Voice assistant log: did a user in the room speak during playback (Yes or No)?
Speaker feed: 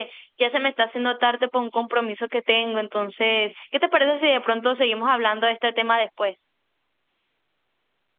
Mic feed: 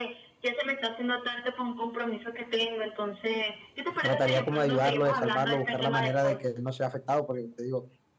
Yes